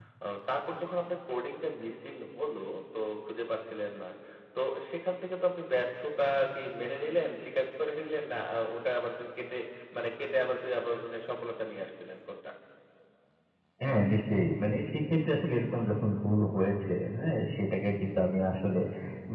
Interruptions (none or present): none